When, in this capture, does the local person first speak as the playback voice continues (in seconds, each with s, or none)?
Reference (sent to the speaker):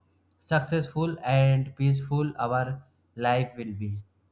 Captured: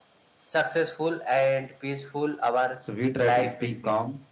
2.9 s